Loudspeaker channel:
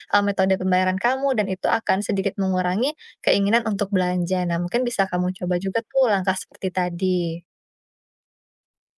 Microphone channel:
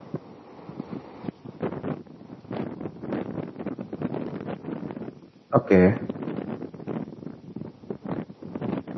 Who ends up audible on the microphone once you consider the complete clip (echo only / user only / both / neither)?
user only